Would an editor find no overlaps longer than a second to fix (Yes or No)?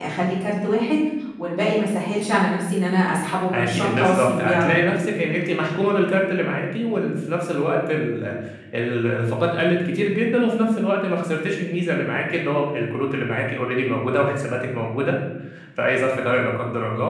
No